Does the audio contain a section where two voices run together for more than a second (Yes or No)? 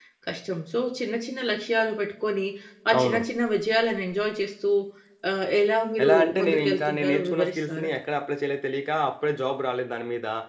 Yes